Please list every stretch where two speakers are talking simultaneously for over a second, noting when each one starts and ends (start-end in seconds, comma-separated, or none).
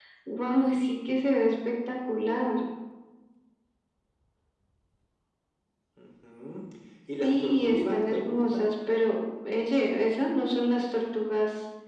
7.2-8.7